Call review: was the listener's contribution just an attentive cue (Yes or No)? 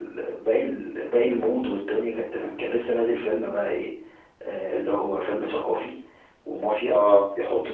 Yes